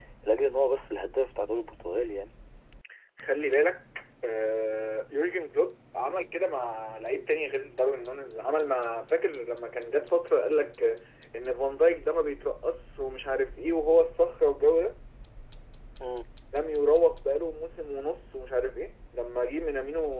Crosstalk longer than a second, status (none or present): none